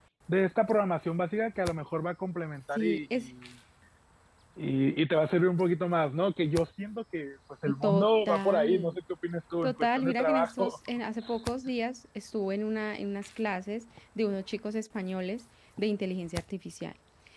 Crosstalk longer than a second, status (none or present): present